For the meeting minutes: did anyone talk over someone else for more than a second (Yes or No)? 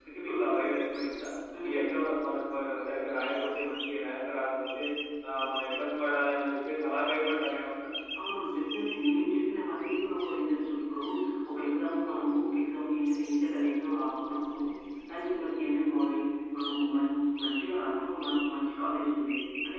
No